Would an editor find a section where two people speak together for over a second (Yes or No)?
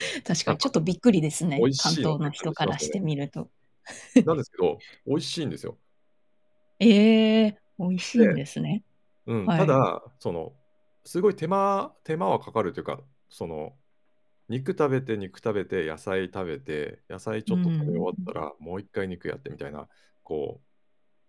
Yes